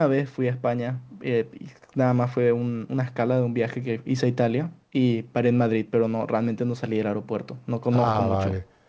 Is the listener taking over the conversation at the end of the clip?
Yes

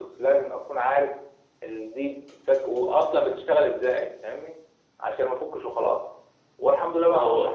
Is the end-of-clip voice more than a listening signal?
No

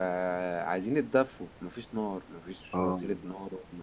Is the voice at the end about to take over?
No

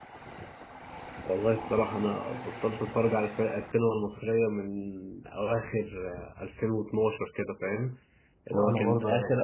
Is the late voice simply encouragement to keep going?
Yes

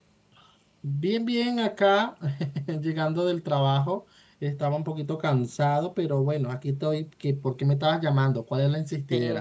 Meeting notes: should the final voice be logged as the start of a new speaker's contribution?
Yes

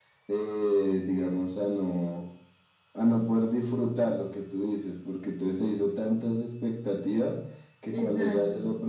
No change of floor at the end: Yes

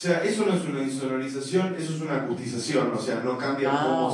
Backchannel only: Yes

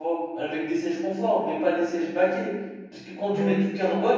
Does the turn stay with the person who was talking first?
Yes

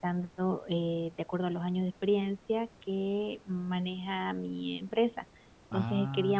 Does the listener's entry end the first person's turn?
No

